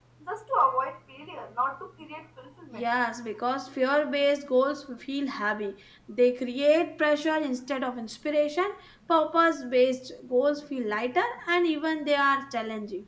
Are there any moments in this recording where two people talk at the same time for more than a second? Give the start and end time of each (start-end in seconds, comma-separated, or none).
none